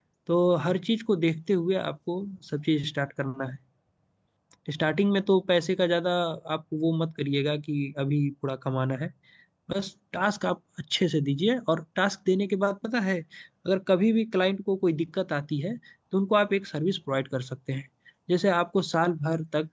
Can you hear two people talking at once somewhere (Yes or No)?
No